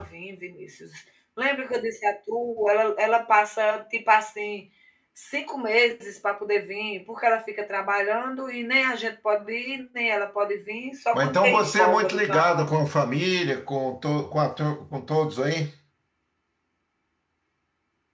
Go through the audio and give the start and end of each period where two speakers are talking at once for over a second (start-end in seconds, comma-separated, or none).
11.1-12.7